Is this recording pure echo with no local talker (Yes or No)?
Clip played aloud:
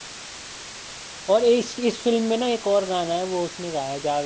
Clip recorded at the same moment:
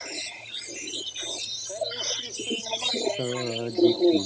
No